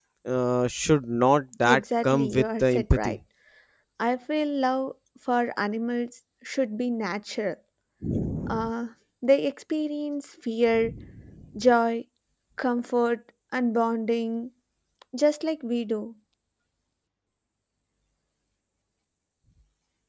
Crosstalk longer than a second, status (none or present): present